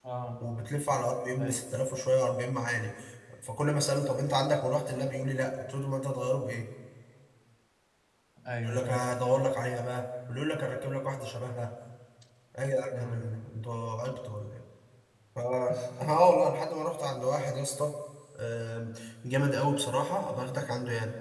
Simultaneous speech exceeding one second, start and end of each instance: none

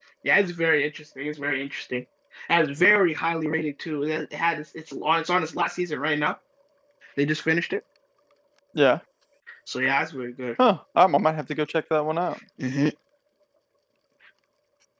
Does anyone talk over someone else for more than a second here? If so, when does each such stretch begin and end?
none

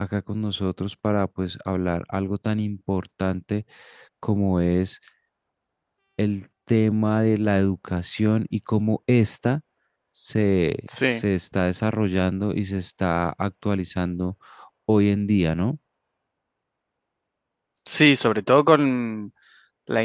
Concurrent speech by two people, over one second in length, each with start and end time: none

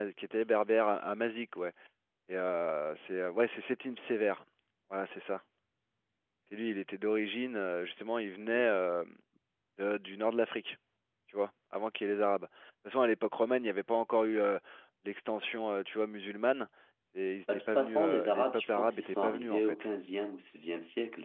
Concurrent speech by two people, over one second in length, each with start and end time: 17.5-19.8

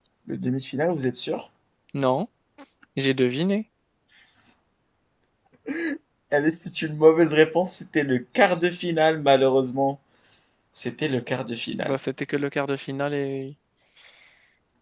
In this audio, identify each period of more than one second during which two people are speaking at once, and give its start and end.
none

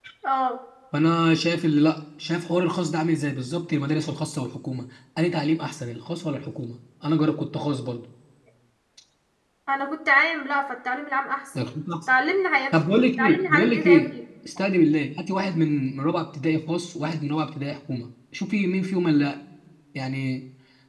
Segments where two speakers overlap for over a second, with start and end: 12.9-14.1

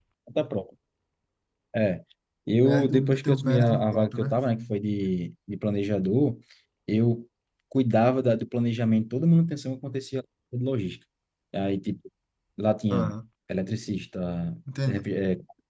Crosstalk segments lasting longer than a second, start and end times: 2.5-4.3

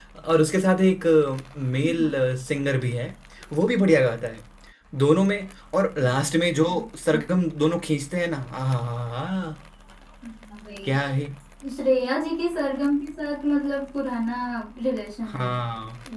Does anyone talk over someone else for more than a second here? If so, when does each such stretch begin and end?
none

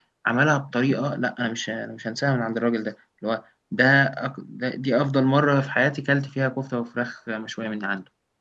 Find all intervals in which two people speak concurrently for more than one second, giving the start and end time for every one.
none

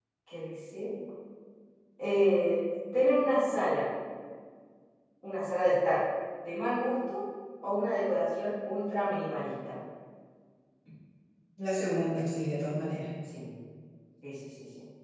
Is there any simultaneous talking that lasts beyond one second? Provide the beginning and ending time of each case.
none

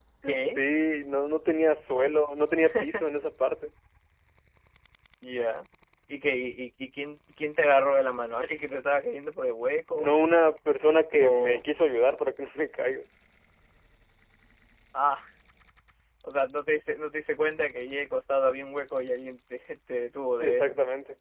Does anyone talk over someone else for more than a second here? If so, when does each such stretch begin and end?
none

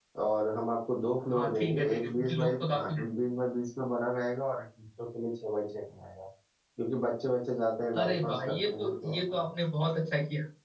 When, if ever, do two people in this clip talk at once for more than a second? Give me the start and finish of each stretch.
1.3-3.0, 8.0-9.4

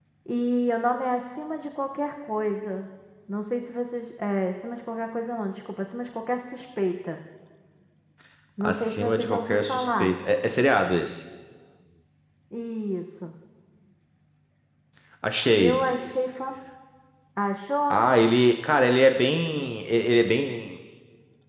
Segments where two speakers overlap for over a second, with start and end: 8.6-10.1

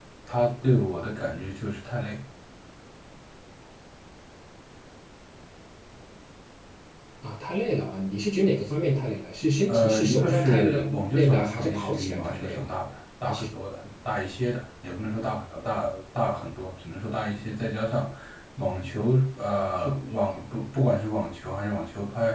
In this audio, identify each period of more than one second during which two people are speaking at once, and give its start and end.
9.7-12.7

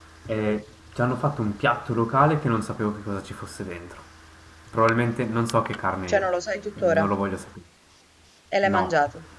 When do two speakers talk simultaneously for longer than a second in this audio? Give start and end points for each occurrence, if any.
none

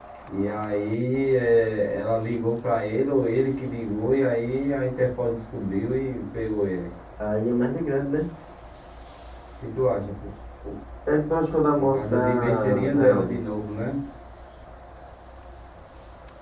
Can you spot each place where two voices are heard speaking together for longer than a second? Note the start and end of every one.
11.8-13.4

